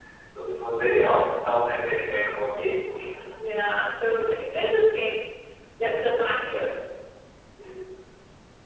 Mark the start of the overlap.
none

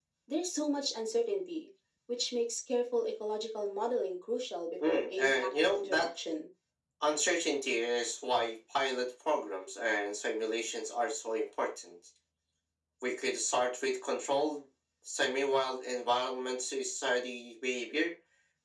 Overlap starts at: 4.8 s

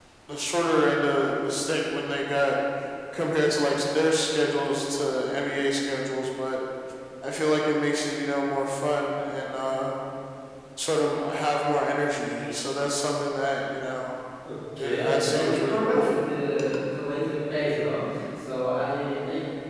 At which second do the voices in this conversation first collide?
14.8 s

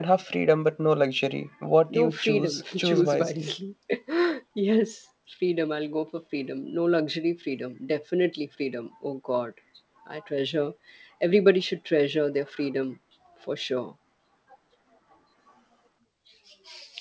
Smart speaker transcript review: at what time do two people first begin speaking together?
1.9 s

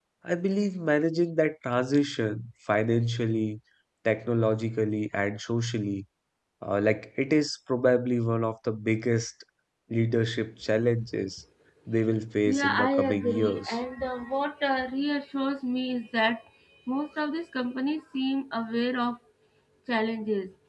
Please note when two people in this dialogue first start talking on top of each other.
12.5 s

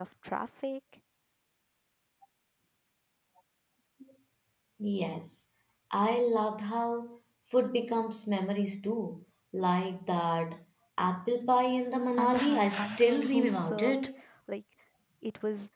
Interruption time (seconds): 12.1 s

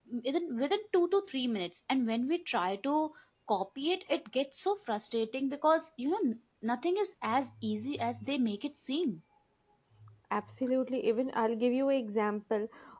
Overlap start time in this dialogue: none

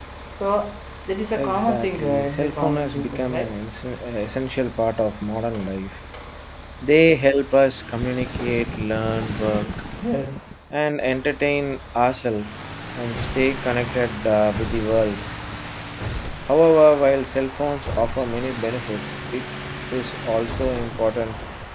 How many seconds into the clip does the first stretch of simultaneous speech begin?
1.2 s

